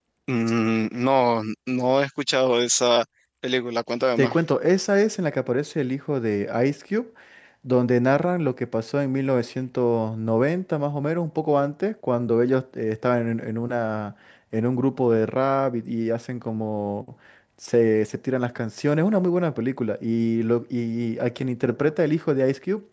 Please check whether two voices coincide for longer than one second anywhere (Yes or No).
No